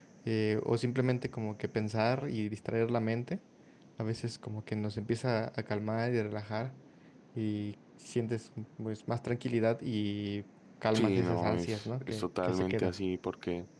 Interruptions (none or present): present